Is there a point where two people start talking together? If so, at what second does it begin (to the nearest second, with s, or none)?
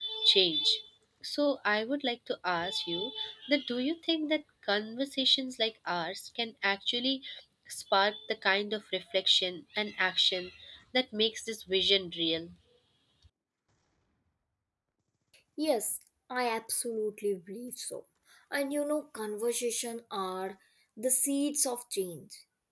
none